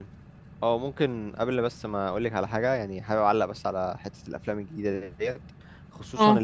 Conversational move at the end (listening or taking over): listening